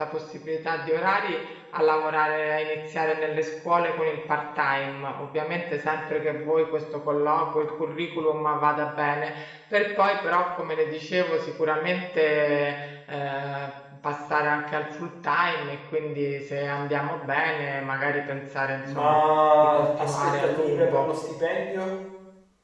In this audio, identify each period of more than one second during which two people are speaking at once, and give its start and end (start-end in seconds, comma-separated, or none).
19.6-21.1